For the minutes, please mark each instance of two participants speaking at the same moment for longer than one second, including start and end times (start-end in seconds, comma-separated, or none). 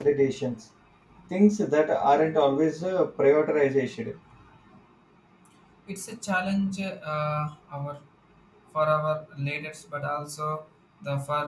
none